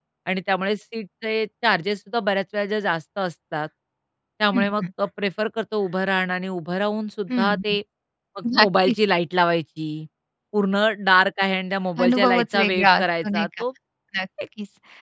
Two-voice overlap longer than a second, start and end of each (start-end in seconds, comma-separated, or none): 12.0-13.6